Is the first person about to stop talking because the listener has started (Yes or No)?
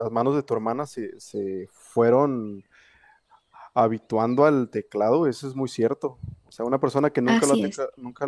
No